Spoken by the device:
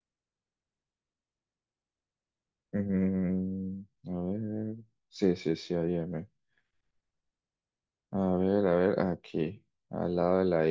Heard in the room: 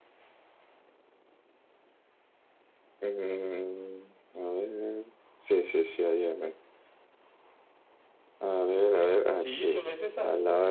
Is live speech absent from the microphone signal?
No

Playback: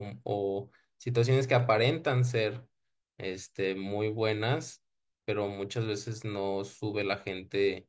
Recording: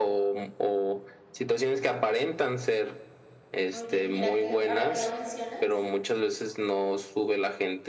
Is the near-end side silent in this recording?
No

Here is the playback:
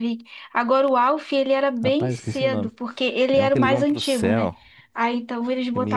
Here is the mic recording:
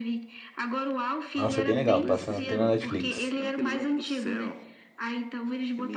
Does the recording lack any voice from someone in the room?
No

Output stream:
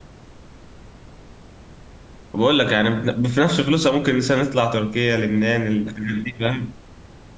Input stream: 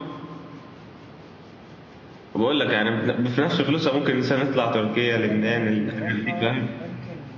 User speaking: Yes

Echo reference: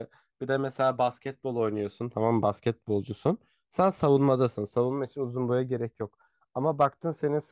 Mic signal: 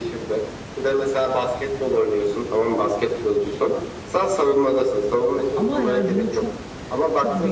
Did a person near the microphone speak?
Yes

